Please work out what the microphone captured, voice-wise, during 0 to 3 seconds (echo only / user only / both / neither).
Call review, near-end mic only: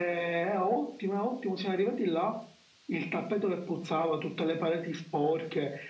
echo only